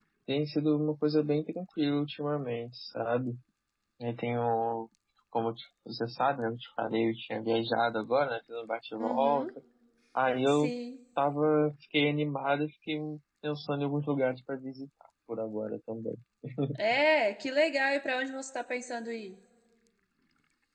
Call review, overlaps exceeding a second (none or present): none